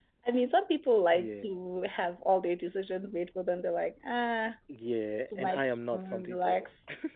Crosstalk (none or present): present